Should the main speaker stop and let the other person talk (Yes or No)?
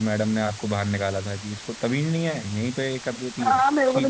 Yes